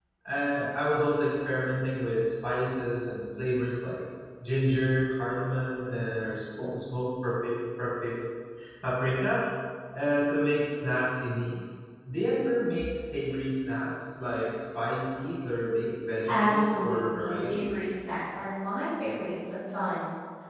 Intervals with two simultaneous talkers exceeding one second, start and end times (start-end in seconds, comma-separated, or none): 16.3-17.8